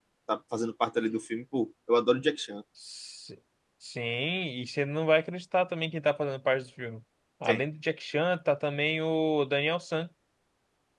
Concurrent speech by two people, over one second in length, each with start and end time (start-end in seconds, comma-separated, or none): none